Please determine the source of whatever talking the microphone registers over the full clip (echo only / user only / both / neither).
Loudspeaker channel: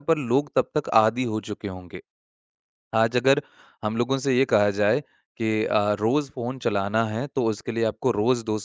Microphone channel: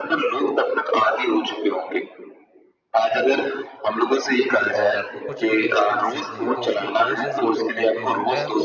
both